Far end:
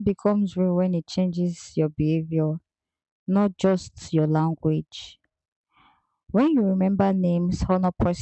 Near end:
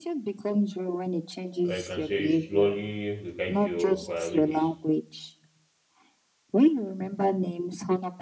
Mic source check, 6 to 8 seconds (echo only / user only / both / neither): echo only